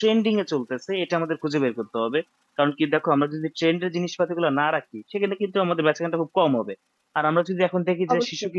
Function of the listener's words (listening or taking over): listening